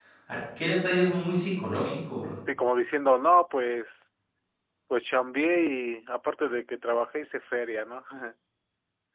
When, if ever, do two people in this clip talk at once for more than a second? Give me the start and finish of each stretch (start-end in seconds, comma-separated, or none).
none